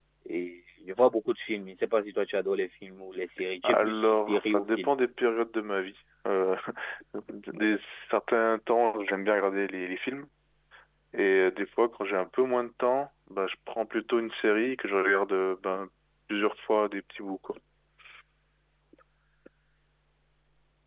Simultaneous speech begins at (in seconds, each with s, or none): 3.6 s